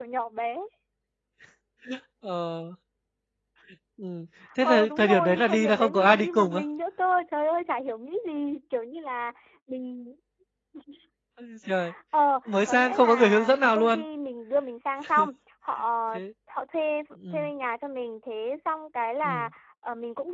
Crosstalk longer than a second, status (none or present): present